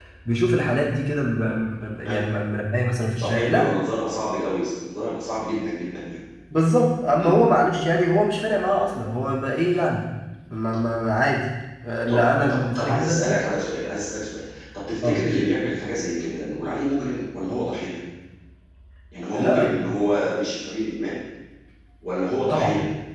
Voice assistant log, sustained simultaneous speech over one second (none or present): present